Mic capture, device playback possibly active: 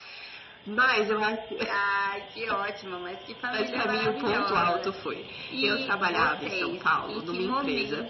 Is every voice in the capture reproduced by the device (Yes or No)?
Yes